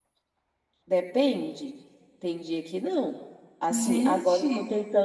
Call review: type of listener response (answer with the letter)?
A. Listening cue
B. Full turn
A